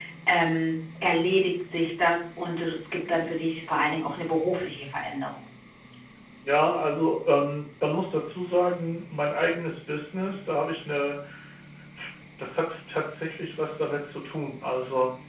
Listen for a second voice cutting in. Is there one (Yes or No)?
No